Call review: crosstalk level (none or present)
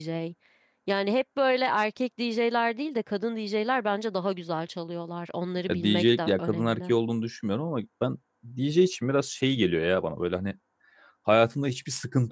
present